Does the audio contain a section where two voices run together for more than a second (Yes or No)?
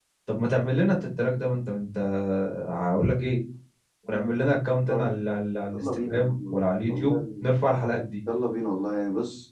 Yes